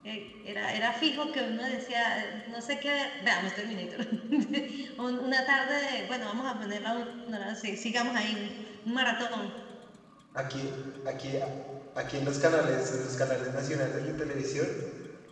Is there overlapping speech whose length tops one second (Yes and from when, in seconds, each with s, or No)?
No